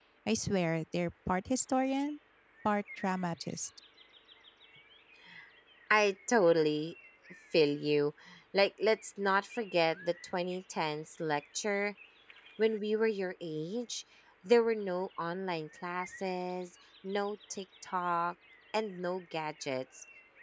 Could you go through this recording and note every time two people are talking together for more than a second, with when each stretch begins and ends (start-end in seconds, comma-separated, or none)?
none